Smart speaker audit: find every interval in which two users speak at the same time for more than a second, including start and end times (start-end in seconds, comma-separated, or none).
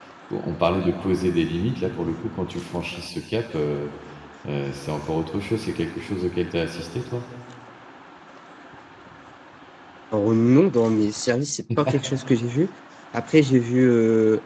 none